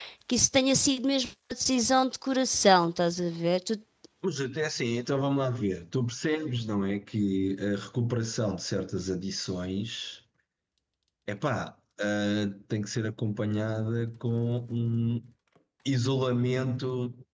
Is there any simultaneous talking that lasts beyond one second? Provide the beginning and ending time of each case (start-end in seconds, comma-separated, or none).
none